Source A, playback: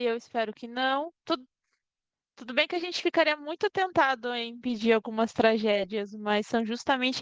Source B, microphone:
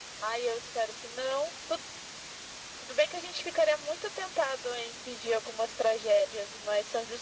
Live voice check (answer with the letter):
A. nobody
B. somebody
A